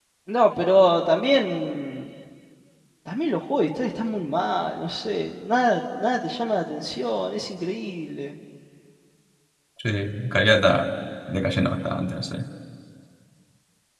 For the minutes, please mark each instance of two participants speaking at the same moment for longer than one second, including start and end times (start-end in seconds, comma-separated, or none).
none